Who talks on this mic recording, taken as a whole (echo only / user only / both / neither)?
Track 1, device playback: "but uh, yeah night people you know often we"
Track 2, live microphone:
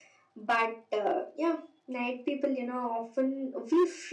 echo only